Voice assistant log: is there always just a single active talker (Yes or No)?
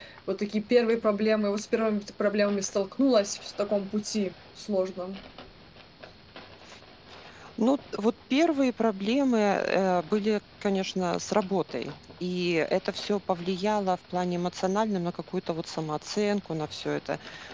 Yes